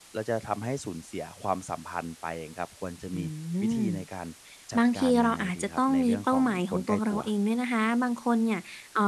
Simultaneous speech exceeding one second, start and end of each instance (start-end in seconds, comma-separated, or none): 4.8-7.2